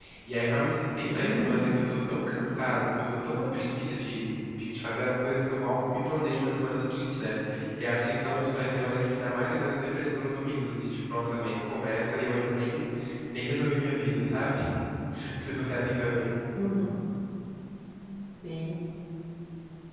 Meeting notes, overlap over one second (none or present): none